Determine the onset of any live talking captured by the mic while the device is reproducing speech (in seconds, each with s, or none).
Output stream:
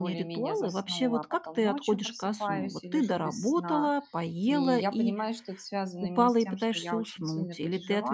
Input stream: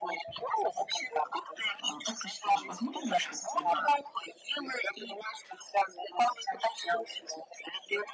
1.8 s